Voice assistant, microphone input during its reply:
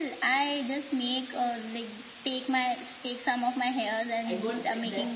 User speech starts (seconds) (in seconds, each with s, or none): 4.2 s